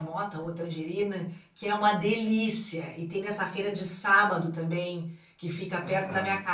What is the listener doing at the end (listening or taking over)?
listening